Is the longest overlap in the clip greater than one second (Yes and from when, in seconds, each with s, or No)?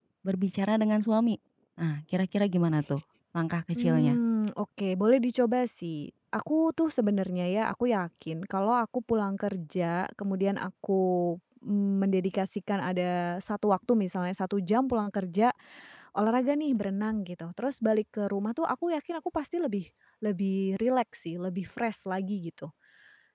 No